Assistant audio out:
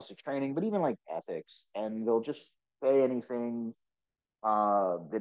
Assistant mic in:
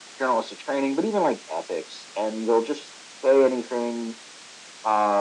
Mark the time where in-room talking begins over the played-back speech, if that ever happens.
none

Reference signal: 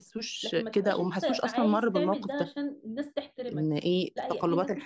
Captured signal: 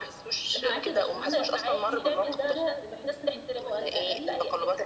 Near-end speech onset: 0.6 s

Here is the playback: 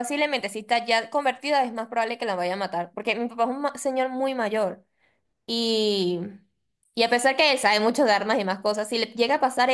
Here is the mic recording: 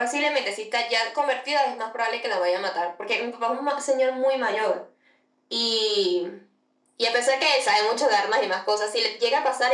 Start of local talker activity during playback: none

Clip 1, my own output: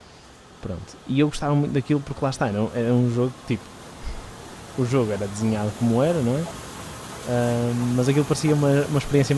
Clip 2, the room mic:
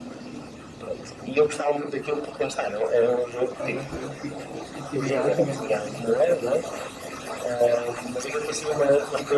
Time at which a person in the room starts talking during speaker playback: 3.5 s

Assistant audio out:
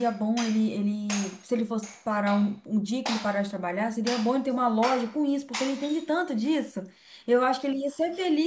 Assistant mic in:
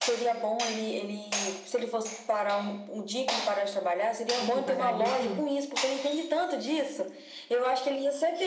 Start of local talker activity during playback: 4.4 s

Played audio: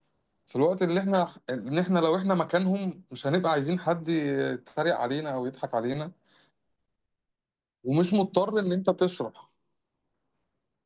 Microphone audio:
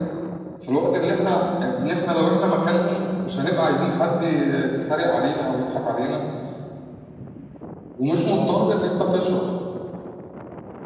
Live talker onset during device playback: 8.3 s

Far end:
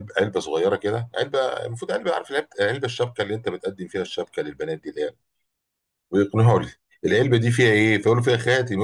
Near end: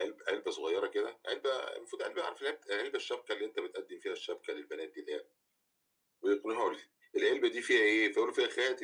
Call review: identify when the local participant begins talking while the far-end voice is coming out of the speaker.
none

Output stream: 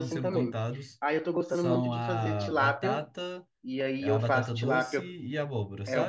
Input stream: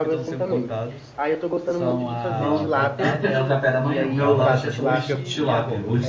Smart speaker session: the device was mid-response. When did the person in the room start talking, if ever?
2.2 s

